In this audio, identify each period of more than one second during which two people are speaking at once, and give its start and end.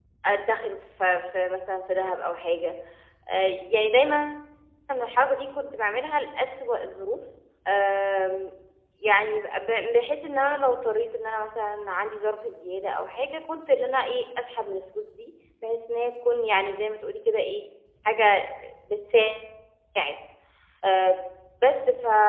none

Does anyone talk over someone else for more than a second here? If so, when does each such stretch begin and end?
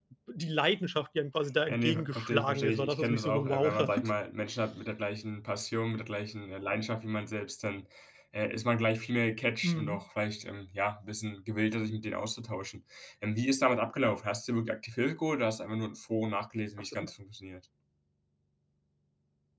1.7-4.1

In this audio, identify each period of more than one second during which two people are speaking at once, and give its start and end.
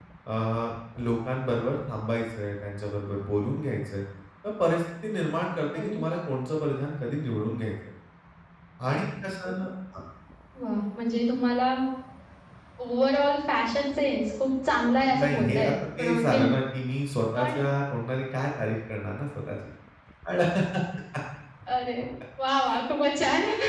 15.0-16.5

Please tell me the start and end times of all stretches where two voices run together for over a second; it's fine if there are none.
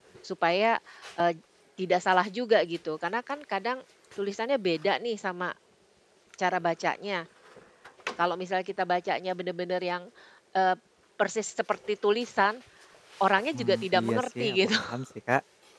13.5-14.8

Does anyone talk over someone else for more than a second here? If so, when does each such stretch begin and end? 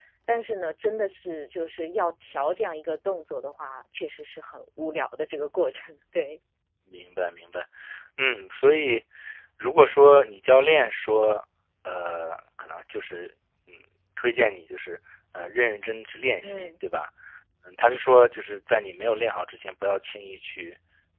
none

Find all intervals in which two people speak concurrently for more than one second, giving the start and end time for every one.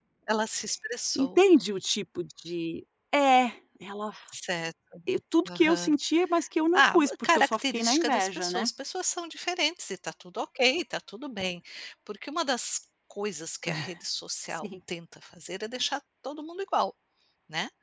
6.7-8.7

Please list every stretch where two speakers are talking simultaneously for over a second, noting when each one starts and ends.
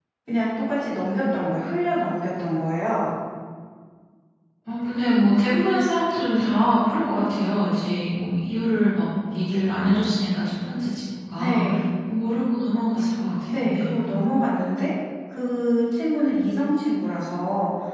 none

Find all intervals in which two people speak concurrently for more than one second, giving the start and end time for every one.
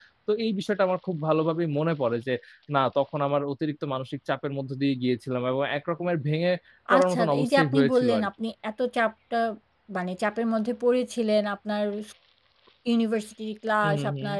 6.9-8.3

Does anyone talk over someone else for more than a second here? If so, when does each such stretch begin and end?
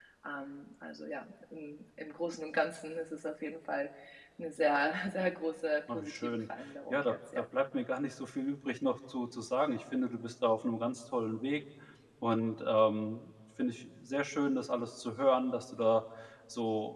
5.9-7.4

